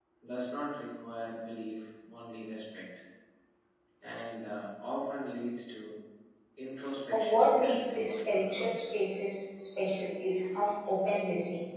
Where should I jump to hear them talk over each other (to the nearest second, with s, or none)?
7 s